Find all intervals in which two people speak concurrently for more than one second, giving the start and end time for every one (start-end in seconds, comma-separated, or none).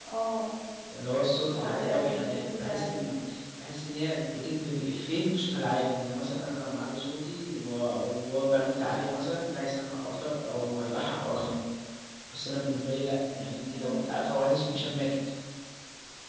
1.5-3.0